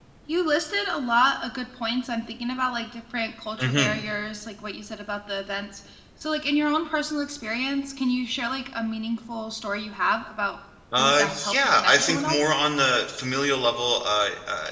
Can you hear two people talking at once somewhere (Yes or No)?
Yes